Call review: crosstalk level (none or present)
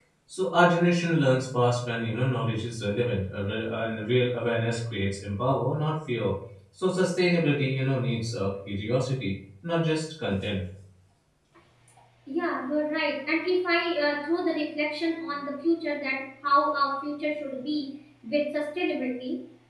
none